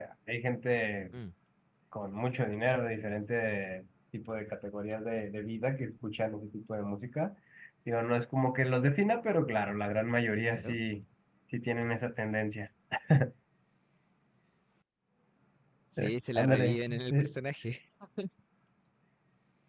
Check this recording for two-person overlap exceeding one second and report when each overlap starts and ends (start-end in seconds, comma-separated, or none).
16.0-17.3